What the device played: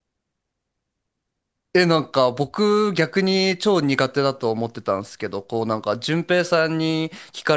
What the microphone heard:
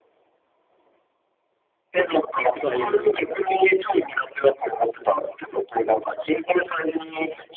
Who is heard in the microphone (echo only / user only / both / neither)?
both